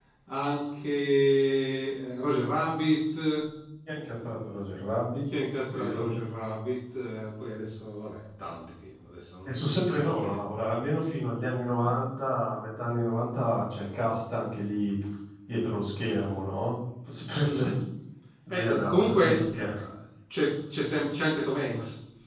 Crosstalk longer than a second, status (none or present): present